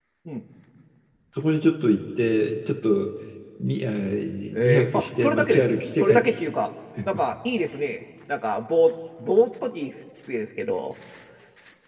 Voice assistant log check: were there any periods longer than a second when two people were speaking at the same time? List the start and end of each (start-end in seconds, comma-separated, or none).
4.6-6.4